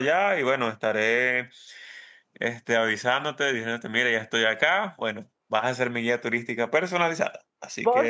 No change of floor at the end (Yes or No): No